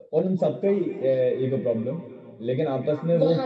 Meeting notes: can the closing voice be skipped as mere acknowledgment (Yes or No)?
Yes